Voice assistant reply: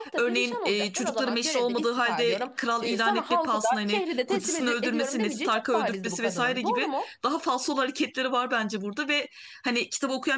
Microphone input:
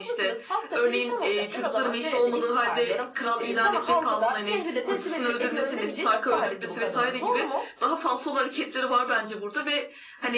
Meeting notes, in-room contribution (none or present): none